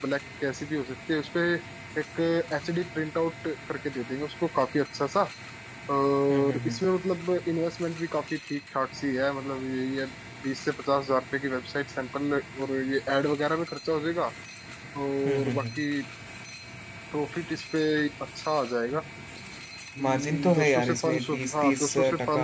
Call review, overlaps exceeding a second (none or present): present